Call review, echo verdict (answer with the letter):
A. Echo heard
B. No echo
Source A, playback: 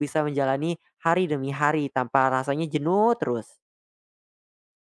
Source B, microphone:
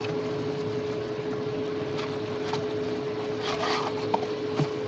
B